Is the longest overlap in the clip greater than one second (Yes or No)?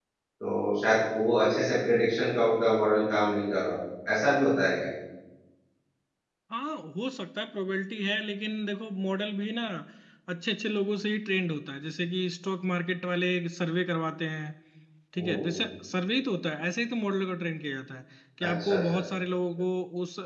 No